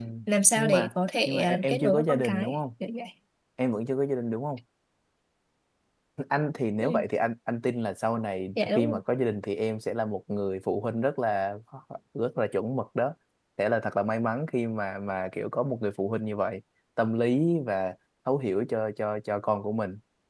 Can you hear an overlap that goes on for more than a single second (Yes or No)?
Yes